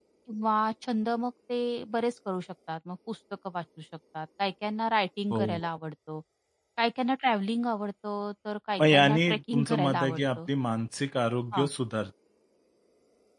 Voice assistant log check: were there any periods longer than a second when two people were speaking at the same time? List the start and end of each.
8.8-10.4

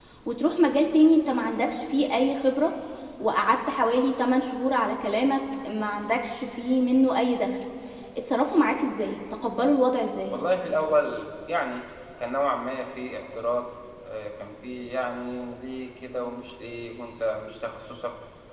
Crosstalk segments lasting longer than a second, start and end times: none

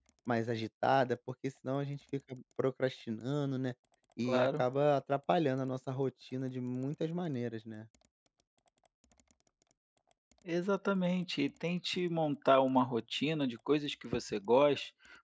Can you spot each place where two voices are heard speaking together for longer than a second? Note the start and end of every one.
none

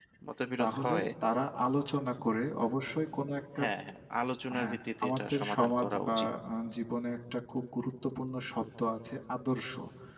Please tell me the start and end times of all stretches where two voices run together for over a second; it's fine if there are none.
4.6-6.3

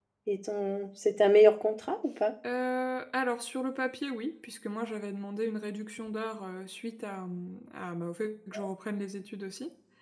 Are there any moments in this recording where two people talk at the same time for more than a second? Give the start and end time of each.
none

